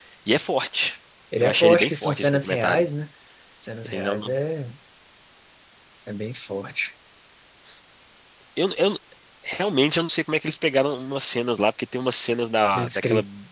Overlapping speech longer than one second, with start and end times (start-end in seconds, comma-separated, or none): 1.4-2.9